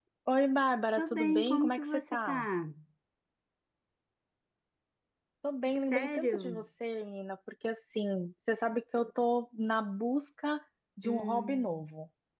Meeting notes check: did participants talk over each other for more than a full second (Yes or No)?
Yes